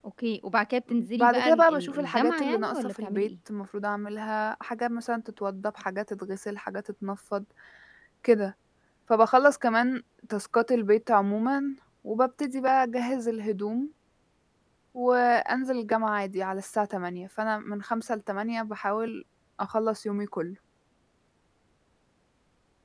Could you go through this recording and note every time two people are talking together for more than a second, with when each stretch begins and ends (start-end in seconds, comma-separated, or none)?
0.9-3.3